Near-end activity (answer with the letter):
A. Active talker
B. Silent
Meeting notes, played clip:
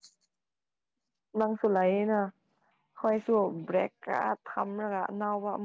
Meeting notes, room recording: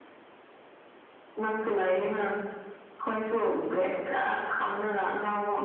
B